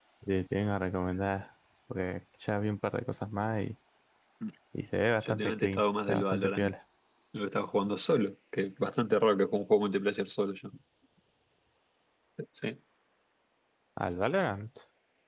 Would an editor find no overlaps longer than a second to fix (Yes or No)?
No